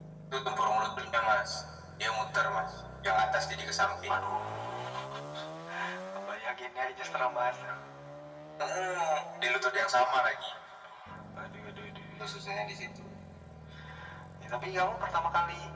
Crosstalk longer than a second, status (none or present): none